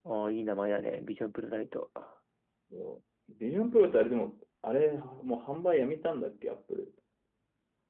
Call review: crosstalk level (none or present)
none